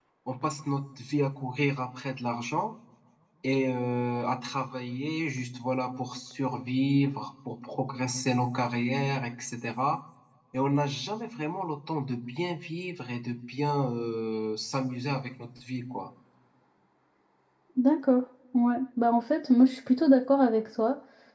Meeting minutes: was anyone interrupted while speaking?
No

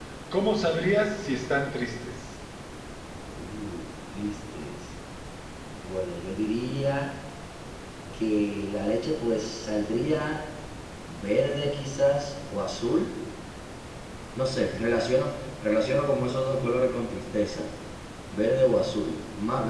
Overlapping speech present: No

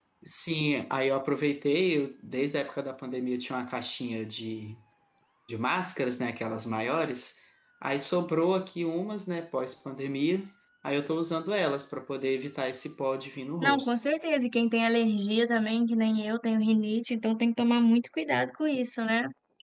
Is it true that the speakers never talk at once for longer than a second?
Yes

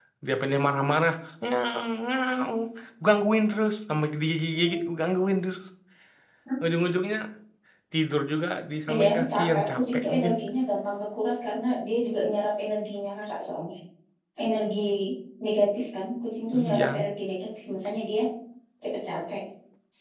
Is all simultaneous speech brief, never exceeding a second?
No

